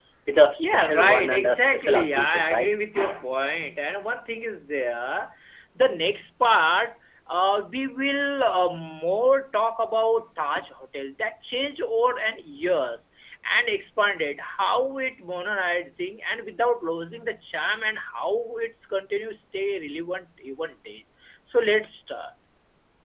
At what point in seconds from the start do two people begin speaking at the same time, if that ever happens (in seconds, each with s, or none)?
0.6 s